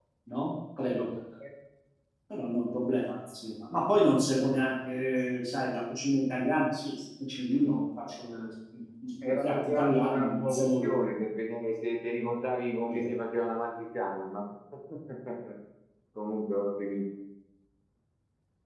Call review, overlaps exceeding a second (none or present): present